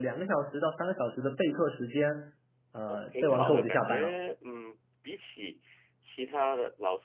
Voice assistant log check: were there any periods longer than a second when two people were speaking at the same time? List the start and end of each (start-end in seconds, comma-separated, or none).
2.9-4.1